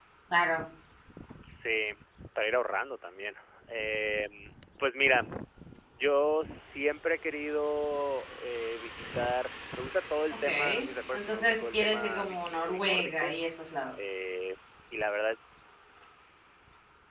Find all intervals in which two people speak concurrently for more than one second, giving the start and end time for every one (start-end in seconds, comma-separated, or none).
11.1-13.3